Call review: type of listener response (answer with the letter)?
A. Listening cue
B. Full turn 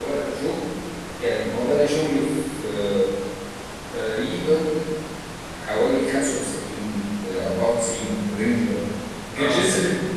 A